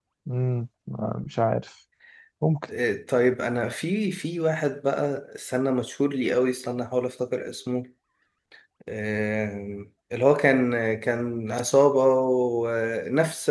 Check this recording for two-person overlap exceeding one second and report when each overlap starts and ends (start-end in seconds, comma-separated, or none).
none